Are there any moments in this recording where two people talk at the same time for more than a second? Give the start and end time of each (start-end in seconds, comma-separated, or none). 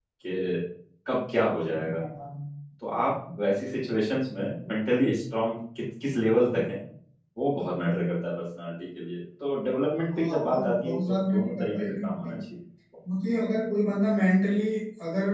10.1-12.4